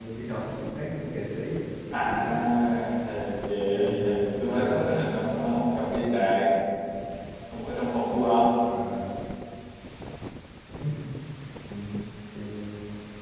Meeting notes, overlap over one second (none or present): none